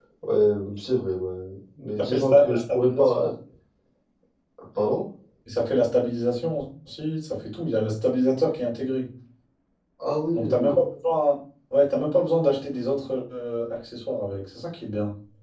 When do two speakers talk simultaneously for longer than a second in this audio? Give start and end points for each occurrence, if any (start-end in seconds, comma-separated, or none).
2.0-3.3